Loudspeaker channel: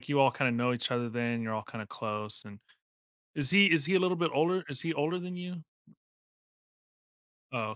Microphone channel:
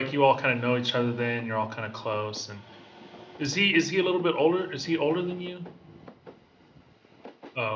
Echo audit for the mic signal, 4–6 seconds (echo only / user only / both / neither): echo only